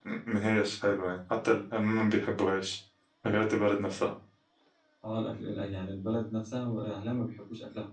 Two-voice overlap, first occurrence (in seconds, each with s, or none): none